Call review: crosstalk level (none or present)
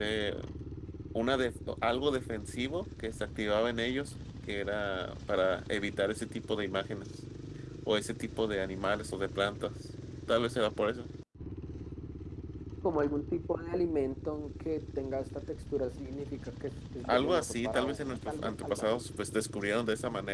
present